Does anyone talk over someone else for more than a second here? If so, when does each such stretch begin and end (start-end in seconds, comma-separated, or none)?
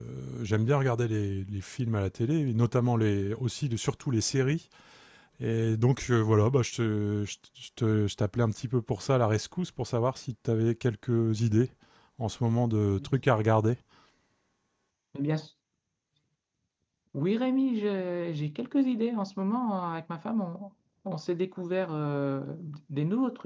none